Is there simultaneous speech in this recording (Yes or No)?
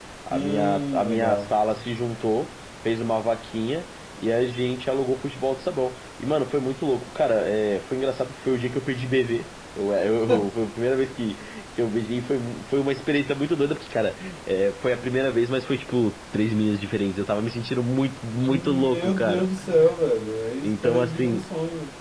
Yes